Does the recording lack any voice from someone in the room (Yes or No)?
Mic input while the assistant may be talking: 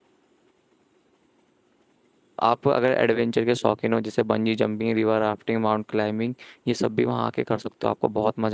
No